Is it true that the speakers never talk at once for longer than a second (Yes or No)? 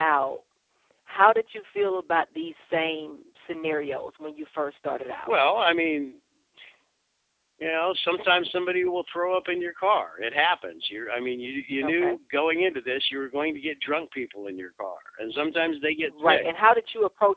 Yes